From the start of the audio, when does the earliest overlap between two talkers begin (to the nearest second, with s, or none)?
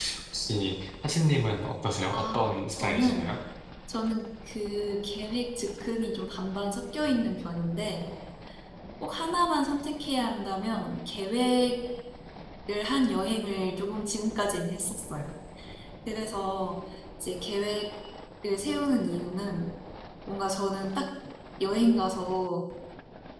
2 s